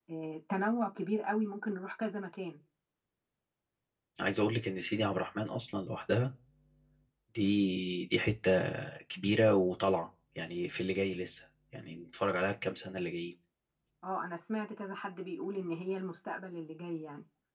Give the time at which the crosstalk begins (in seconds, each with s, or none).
none